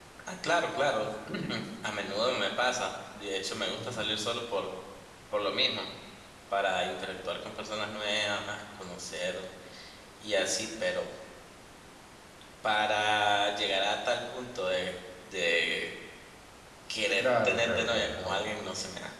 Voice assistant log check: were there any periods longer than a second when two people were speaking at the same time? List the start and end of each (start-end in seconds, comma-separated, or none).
17.2-18.4